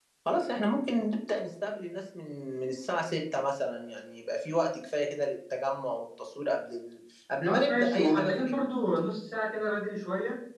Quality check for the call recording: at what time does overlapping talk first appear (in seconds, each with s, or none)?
7.5 s